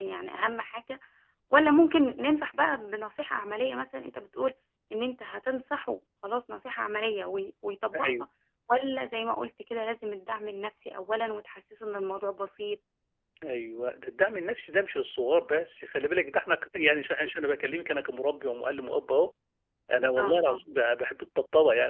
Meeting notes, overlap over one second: none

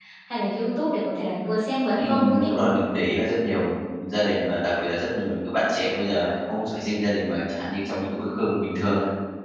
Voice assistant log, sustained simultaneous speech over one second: none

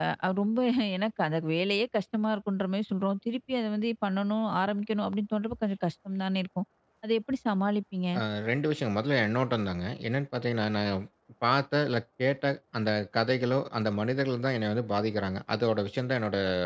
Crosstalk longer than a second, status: none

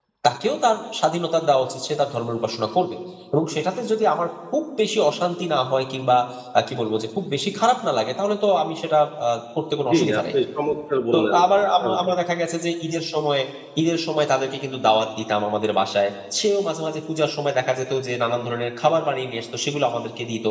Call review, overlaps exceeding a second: none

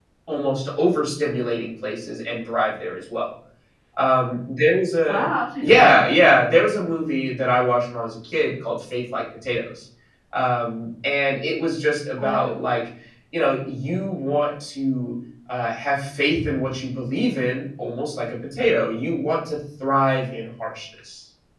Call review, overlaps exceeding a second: none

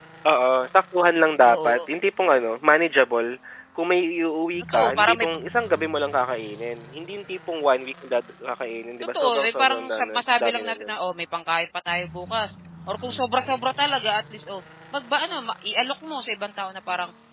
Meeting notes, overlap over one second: present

